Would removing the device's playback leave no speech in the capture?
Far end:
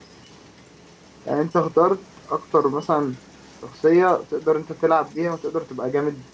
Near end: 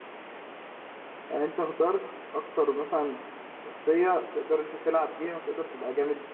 Yes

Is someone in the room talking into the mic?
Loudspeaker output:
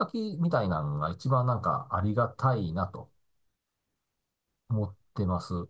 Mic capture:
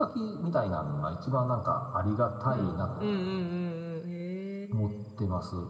Yes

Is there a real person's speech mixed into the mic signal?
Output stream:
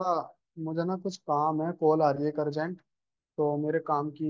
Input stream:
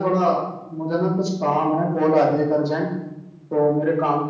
No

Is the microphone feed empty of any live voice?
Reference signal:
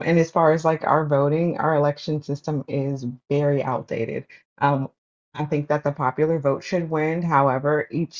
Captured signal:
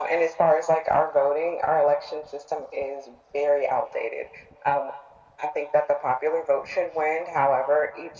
Yes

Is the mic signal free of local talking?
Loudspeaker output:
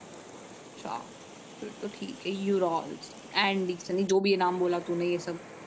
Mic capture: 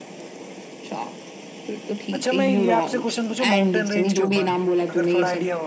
No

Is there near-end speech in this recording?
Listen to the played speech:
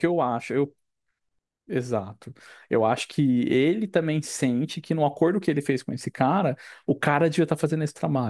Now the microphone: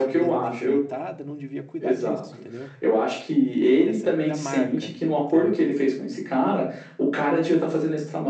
Yes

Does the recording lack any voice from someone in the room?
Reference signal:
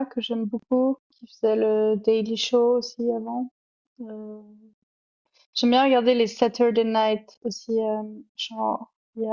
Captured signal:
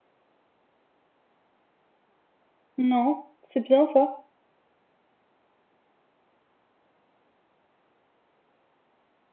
No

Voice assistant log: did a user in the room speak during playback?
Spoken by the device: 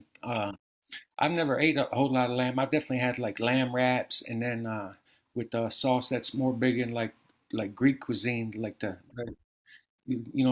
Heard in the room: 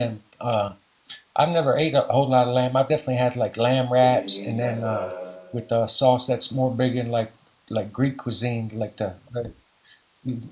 Yes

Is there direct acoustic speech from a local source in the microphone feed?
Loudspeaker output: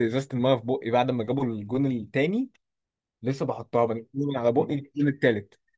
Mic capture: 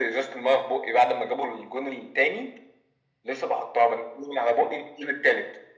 No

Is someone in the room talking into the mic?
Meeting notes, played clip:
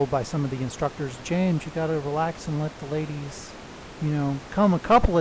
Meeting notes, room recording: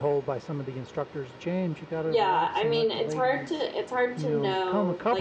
Yes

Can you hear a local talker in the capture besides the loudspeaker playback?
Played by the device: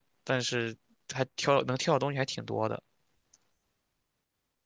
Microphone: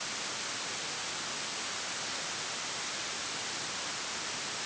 No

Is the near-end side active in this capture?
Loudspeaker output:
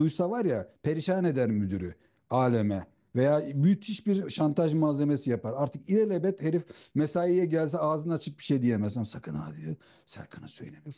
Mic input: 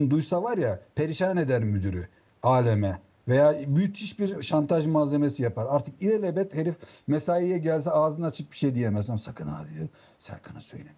No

